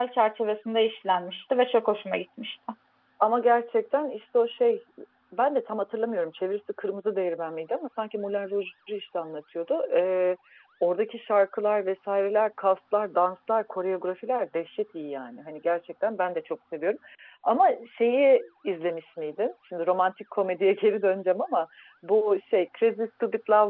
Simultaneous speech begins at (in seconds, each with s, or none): none